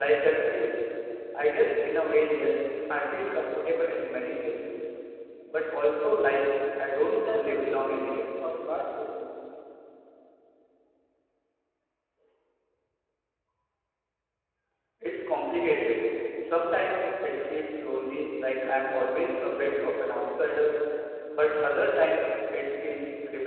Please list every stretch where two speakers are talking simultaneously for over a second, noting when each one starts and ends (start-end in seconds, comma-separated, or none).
7.0-8.3